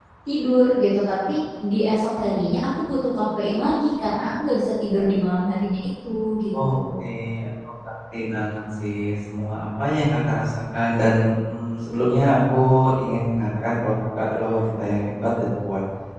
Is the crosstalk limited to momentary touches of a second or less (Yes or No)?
Yes